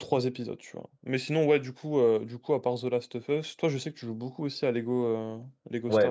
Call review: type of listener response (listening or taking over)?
taking over